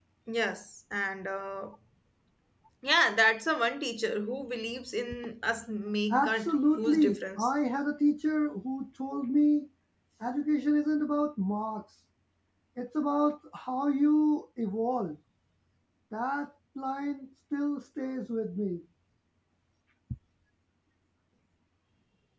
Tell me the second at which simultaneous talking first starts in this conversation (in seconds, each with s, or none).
6.1 s